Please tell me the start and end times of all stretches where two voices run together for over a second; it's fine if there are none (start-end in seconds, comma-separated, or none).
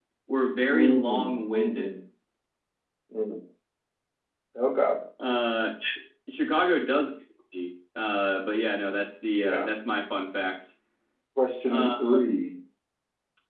0.7-2.0